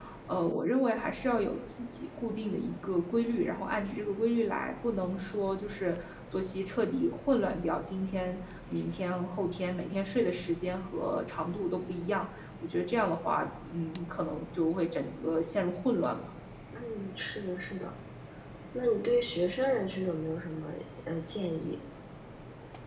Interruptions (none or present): none